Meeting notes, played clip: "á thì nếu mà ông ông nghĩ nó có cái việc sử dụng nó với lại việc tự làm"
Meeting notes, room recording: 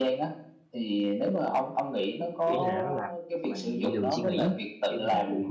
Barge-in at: 2 s

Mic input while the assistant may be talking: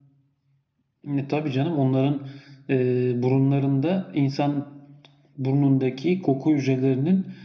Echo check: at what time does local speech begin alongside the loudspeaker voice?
none

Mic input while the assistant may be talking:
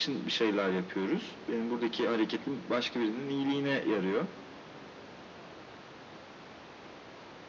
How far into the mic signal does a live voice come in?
none

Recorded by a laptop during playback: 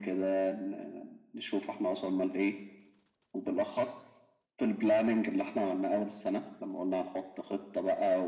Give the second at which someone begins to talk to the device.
none

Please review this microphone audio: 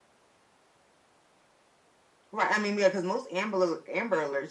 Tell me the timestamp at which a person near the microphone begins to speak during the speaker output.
none

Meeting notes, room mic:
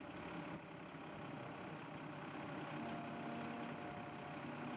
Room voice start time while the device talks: none

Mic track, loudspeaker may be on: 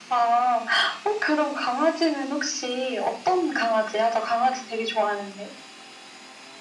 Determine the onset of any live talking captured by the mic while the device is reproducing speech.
none

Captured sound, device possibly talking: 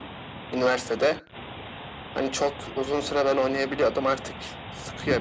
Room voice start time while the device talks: none

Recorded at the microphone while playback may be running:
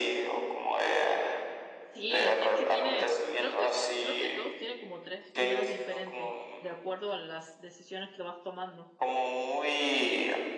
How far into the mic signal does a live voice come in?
2 s

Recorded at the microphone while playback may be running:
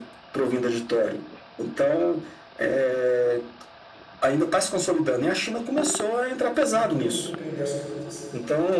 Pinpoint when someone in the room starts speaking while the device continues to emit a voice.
7 s

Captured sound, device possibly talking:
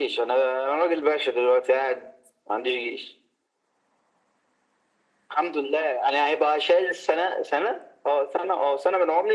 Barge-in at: none

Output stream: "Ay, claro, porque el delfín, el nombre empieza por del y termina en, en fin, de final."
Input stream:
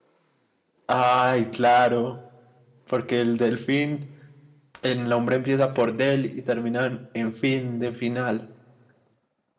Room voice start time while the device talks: none

